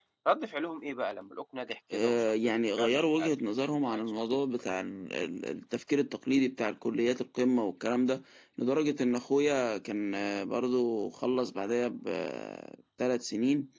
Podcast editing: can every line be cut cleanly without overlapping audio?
No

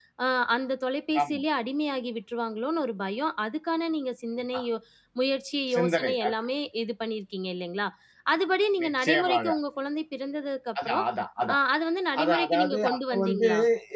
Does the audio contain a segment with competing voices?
Yes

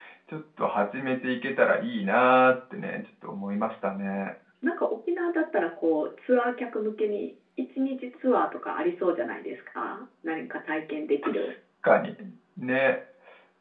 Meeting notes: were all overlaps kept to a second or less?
Yes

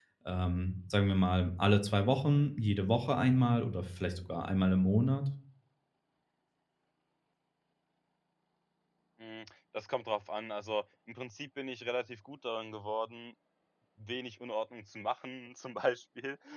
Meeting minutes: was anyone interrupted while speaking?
No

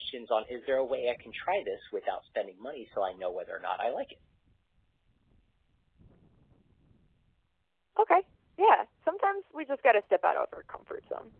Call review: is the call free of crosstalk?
Yes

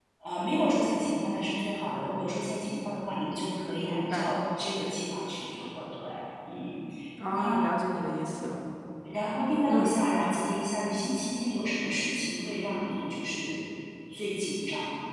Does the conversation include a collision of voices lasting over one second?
No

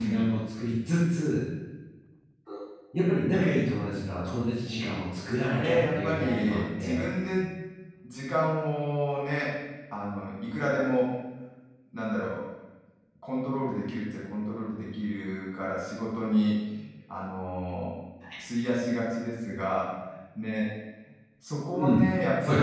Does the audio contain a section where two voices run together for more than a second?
Yes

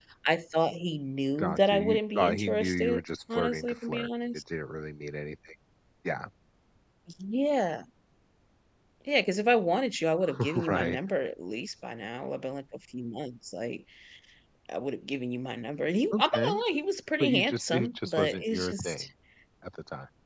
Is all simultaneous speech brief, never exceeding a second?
No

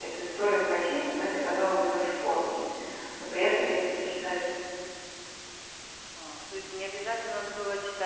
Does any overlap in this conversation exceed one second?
No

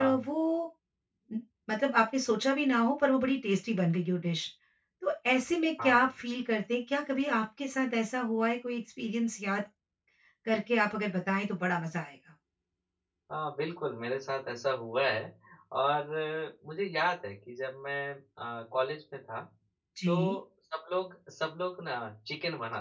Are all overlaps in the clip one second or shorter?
Yes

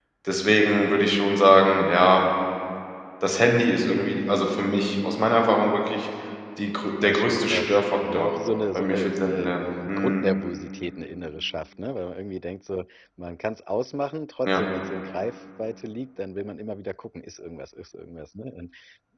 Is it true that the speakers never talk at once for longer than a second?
No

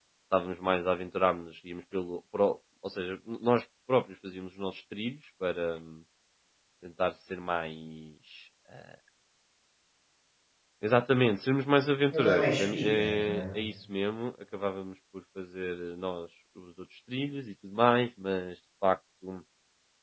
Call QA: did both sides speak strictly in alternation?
No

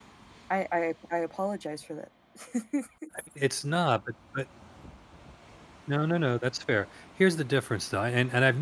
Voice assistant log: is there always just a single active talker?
Yes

